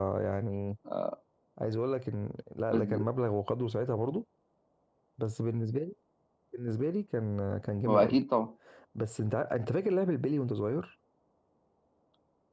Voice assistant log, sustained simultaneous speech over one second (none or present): none